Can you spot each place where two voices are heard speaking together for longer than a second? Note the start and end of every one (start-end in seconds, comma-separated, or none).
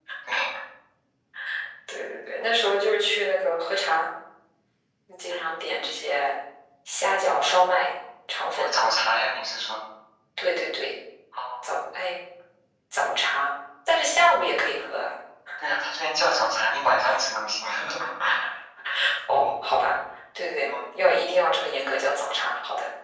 none